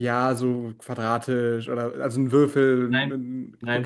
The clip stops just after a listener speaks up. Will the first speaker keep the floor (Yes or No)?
Yes